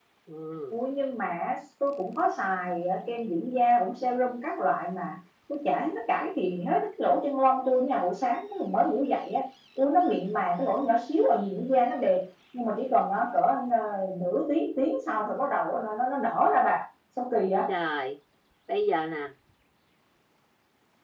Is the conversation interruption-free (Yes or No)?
Yes